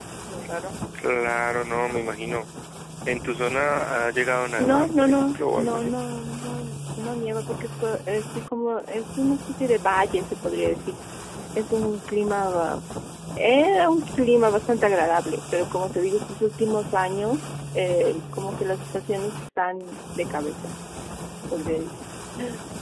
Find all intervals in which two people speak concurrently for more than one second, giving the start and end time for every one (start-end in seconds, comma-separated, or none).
4.6-5.9